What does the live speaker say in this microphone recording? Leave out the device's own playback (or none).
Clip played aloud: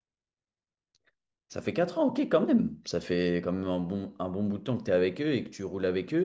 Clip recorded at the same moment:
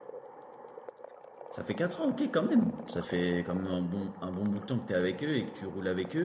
none